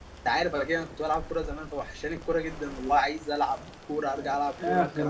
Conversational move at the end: taking over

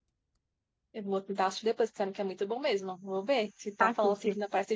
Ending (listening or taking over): listening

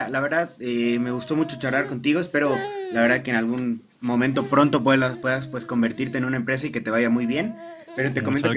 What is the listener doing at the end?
listening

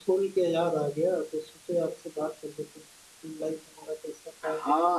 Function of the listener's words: taking over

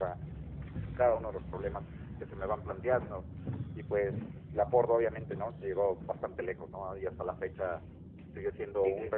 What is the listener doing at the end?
listening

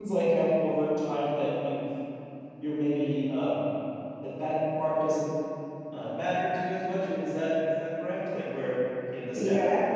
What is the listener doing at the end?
taking over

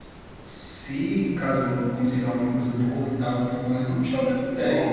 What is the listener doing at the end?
taking over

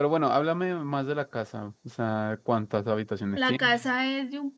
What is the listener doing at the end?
taking over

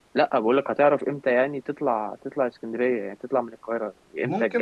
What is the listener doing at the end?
taking over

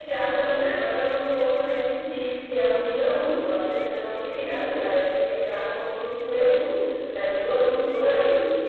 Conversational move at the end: listening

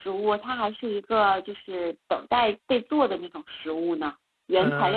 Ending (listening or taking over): taking over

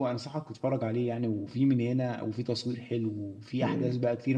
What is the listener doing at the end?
taking over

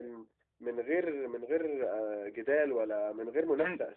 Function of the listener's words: taking over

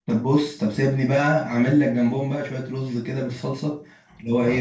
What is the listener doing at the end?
listening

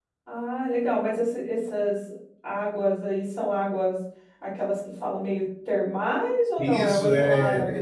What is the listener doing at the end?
taking over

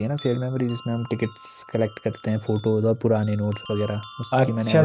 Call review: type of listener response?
taking over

